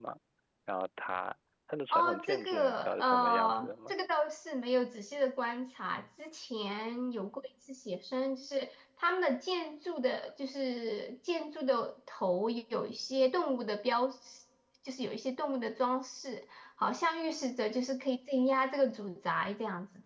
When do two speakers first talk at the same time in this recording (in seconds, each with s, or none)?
1.9 s